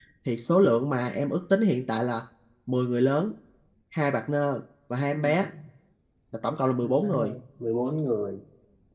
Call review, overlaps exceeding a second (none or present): none